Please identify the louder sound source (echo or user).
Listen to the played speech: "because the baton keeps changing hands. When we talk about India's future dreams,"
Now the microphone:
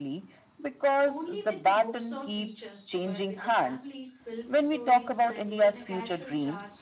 echo